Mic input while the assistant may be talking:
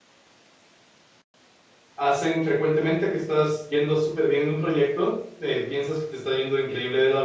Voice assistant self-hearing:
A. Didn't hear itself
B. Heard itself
A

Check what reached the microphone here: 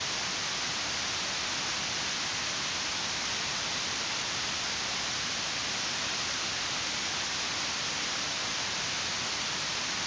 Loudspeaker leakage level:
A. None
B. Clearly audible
A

